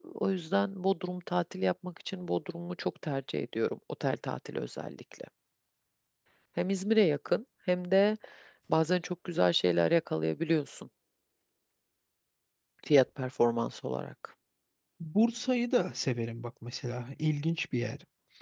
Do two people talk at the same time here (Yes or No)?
No